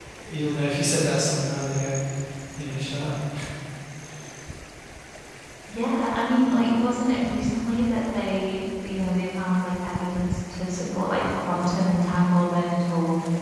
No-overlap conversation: Yes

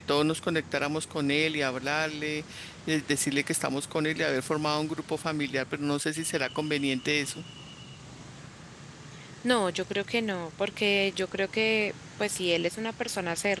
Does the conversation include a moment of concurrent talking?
No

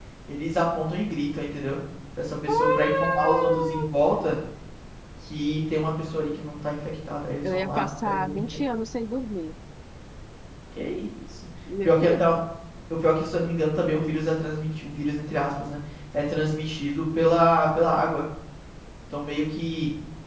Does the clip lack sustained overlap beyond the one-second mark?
No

